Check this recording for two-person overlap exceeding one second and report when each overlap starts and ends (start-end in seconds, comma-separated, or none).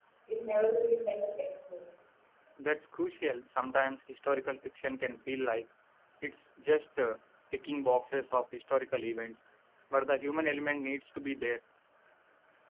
none